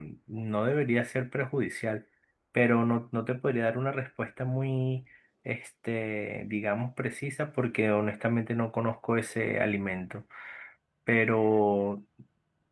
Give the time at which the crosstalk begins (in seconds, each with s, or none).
none